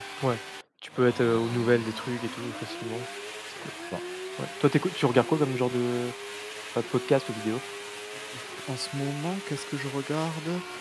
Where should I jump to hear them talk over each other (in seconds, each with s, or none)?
none